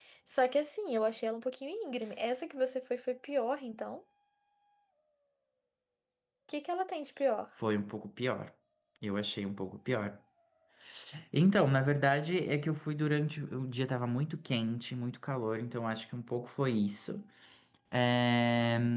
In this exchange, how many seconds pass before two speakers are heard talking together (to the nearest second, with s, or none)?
none